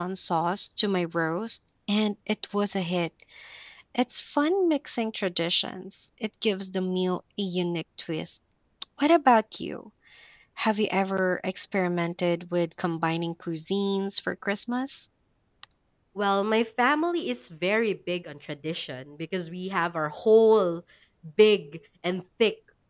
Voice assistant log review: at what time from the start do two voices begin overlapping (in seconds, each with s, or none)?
none